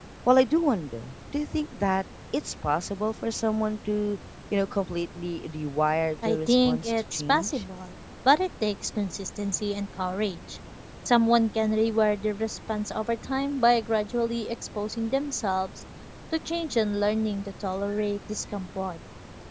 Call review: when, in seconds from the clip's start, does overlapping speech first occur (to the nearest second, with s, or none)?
6 s